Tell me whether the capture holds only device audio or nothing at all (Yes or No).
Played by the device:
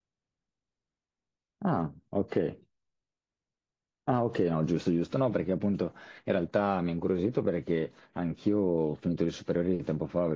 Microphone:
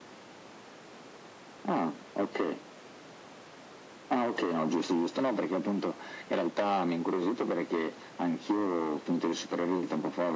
Yes